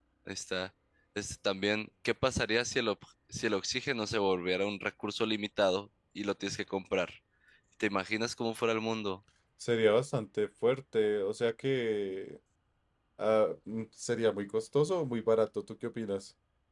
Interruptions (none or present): none